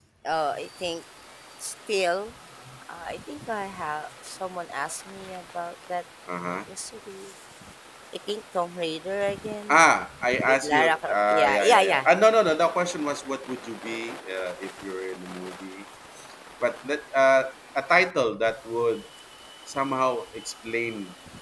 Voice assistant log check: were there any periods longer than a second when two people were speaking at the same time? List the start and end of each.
10.5-12.1

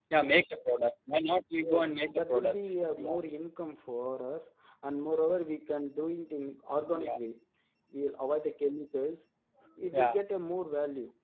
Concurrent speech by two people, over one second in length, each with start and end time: 1.6-3.2

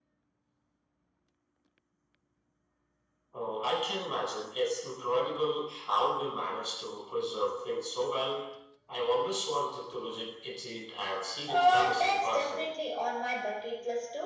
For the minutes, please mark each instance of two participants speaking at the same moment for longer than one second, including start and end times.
11.5-12.7

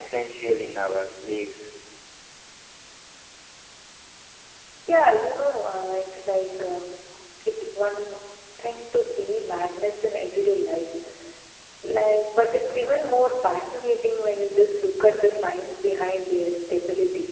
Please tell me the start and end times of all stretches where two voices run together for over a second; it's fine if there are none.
none

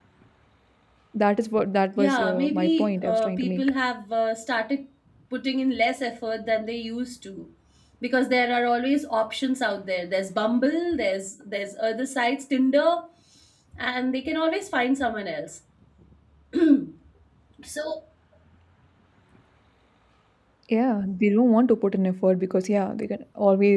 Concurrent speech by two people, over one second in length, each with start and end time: 2.0-3.6

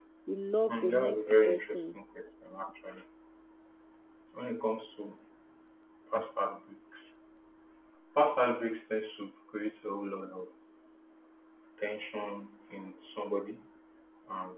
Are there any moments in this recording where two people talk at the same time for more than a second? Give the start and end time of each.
0.7-2.0

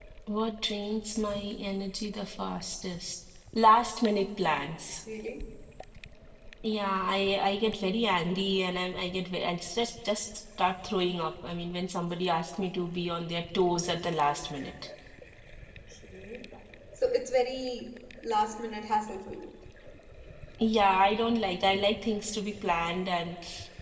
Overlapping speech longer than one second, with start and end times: none

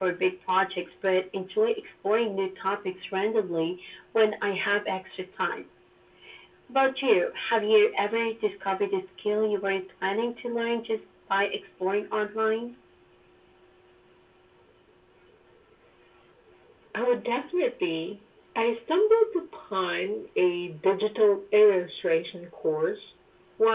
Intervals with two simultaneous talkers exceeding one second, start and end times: none

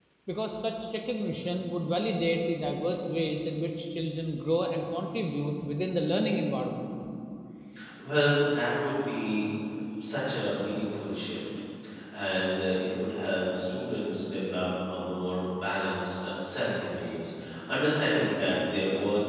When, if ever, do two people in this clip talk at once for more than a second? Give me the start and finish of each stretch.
none

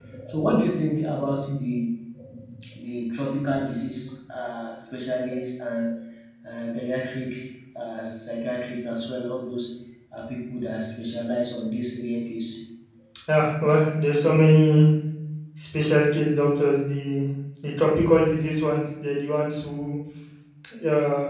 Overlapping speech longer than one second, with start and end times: none

